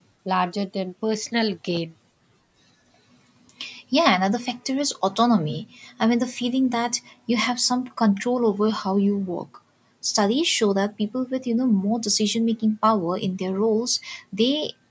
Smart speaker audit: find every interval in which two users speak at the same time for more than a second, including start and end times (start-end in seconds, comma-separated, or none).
none